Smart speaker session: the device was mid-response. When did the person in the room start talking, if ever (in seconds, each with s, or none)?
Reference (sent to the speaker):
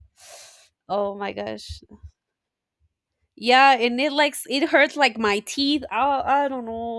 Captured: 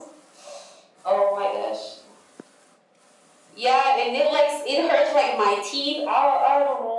none